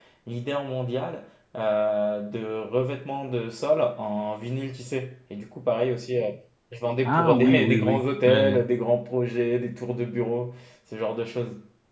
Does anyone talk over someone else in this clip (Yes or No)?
Yes